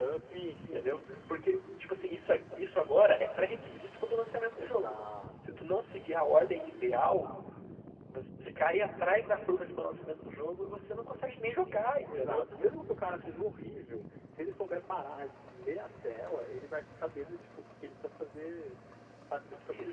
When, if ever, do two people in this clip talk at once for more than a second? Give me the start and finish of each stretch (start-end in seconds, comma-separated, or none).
none